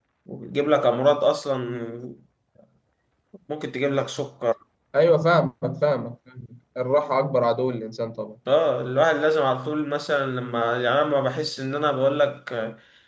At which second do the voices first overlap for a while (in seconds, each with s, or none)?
none